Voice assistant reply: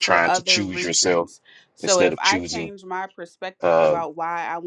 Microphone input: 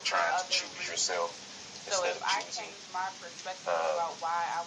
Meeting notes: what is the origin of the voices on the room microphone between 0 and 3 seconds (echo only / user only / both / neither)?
echo only